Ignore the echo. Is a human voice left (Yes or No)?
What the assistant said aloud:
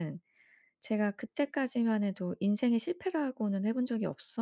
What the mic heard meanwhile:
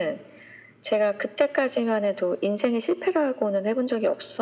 No